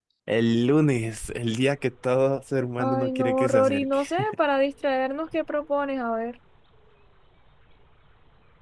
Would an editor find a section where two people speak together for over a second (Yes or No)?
Yes